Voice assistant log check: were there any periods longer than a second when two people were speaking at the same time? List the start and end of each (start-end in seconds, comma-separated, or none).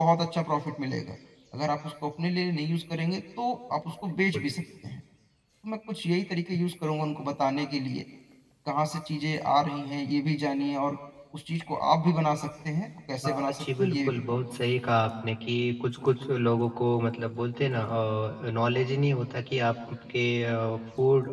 13.2-14.5